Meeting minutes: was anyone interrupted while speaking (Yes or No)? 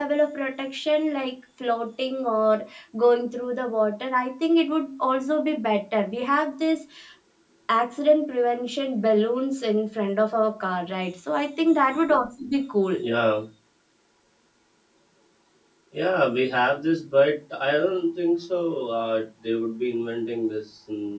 No